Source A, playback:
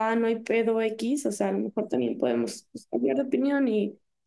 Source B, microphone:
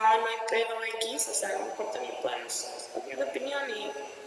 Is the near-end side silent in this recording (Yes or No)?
Yes